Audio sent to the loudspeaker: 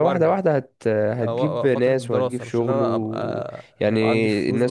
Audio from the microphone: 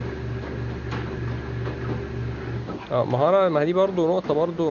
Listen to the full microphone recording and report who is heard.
user only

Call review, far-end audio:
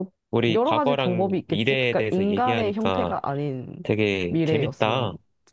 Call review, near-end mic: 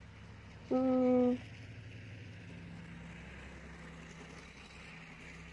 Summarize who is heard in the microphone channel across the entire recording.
user only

